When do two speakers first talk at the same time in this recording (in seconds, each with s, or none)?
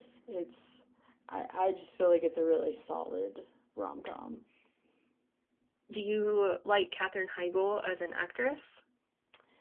none